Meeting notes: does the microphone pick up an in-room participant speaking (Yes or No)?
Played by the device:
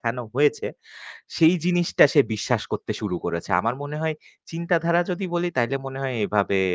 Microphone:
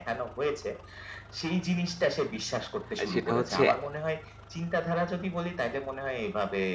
Yes